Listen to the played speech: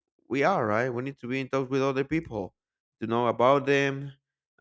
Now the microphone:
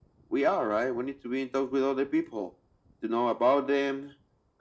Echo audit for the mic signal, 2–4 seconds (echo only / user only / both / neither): echo only